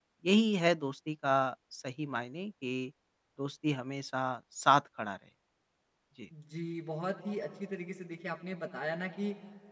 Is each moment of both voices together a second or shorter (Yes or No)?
Yes